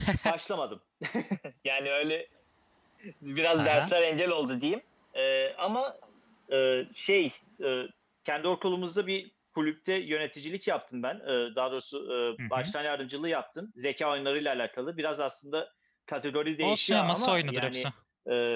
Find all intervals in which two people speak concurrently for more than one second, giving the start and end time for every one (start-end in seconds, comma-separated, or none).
16.6-17.9